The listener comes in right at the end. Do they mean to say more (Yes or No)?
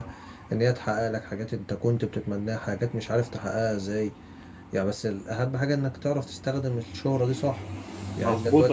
Yes